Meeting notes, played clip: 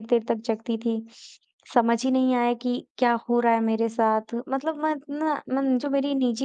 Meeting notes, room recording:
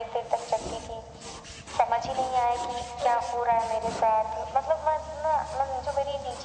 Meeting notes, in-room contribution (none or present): none